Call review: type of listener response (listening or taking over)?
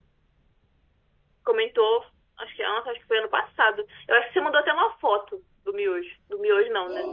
taking over